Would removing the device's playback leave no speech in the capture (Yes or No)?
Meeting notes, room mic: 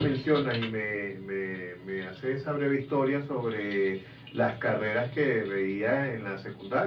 Yes